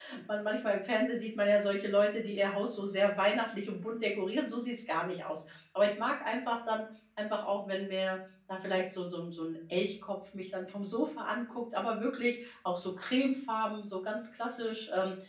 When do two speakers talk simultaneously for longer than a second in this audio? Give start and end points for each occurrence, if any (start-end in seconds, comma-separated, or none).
none